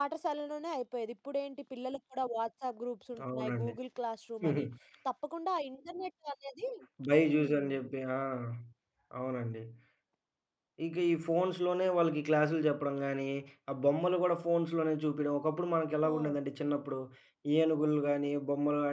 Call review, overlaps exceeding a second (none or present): none